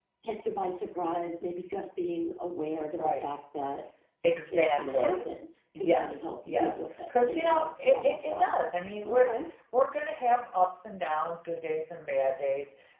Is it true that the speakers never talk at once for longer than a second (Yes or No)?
No